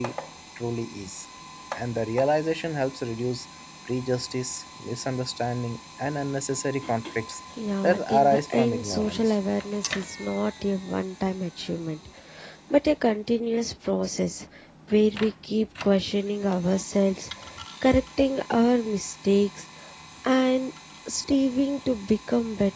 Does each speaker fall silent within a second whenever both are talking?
No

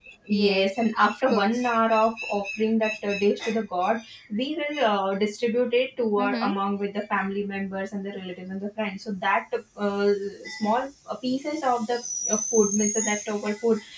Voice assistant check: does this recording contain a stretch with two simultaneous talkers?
Yes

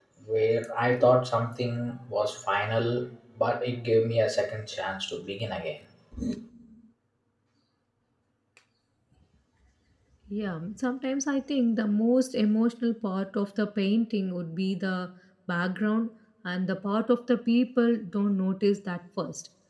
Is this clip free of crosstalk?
Yes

